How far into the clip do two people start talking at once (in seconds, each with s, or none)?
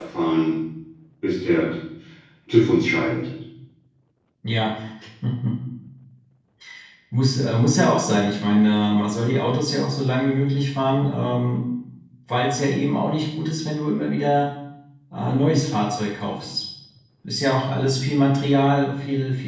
none